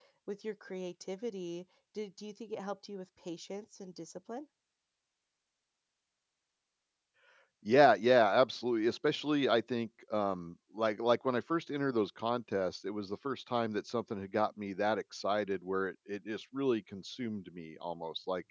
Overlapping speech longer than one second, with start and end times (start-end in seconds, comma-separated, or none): none